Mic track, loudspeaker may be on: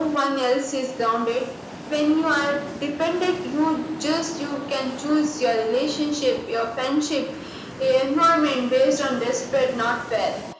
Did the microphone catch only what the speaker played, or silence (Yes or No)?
Yes